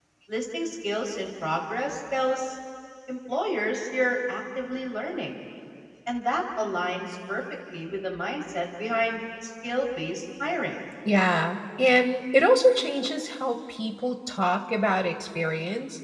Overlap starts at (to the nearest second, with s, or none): none